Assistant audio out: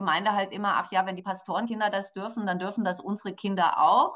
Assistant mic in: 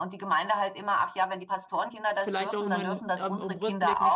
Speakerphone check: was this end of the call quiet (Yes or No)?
No